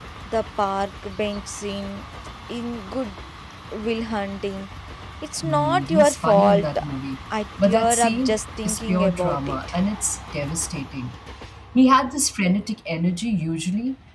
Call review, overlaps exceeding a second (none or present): present